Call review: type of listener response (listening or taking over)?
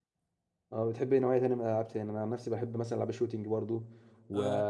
listening